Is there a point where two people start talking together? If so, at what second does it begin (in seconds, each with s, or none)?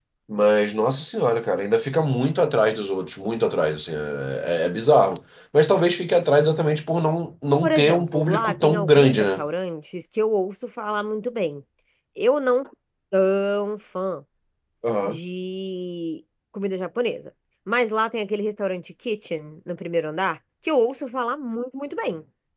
7.6 s